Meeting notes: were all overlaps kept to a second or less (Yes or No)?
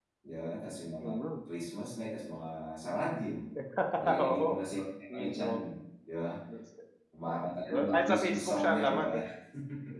No